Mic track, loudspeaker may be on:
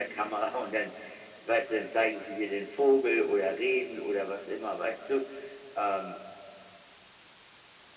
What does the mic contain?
echo only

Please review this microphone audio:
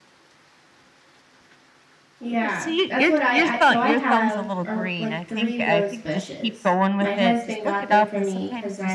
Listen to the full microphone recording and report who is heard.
both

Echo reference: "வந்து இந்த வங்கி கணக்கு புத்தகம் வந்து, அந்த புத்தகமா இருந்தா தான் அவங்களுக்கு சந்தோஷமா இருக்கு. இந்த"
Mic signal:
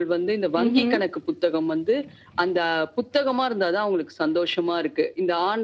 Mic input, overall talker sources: both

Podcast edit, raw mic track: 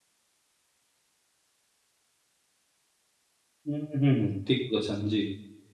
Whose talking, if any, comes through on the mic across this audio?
user only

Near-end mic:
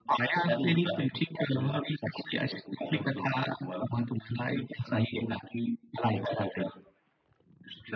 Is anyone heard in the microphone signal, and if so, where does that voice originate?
echo only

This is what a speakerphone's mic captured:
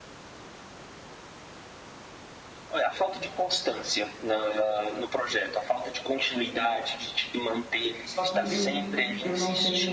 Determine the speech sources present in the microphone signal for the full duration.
both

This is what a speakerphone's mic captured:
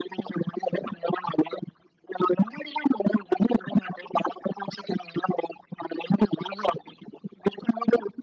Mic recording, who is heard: echo only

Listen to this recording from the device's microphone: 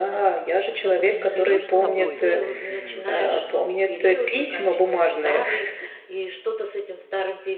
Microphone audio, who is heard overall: both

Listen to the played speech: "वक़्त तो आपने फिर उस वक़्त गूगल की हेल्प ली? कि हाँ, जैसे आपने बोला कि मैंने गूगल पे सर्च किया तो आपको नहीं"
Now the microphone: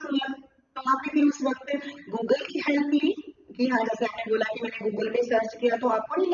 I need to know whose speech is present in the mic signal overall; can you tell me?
echo only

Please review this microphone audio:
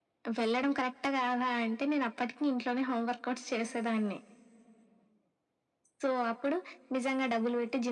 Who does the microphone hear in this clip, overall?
echo only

